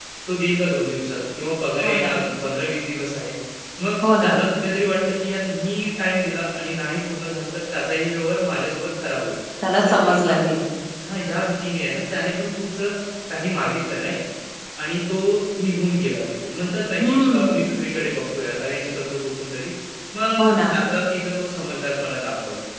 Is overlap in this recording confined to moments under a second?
Yes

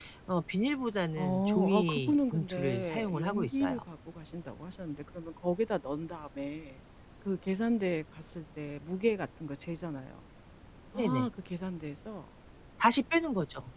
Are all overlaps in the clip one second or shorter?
No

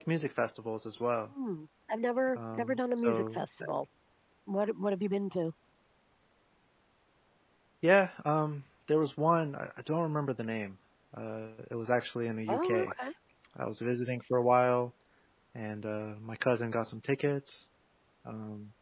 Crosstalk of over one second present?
Yes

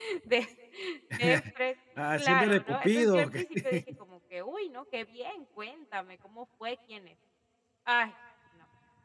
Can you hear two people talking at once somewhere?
Yes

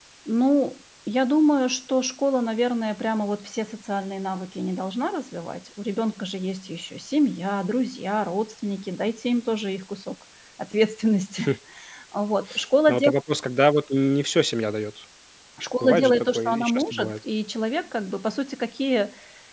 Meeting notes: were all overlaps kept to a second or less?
No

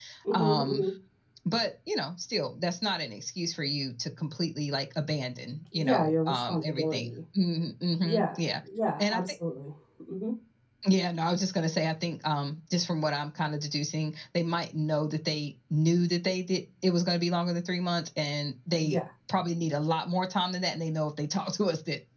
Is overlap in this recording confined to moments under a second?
No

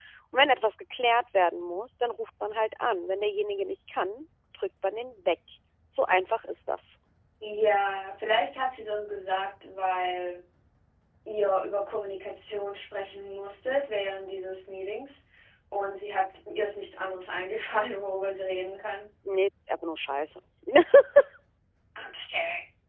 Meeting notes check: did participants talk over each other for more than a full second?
No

